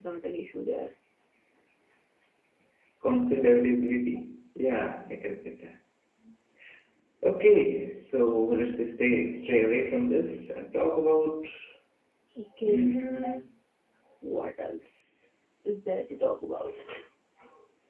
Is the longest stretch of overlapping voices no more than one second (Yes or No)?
Yes